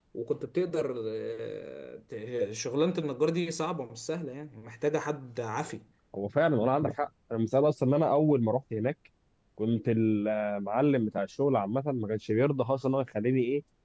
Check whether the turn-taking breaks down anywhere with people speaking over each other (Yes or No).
No